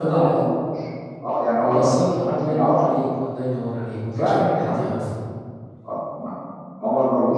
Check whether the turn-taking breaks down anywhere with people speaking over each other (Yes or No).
Yes